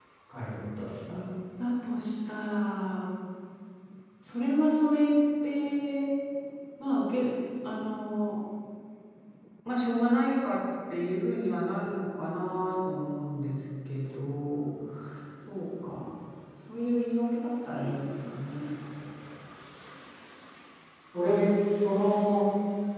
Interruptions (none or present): none